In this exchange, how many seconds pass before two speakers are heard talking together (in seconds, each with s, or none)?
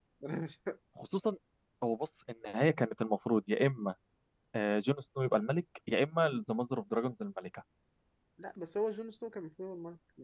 none